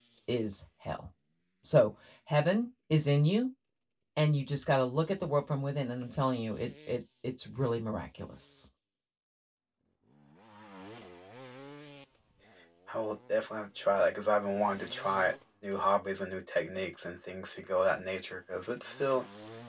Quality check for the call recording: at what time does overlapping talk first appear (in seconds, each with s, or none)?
none